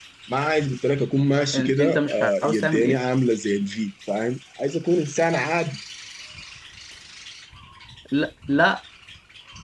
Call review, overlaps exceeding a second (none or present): present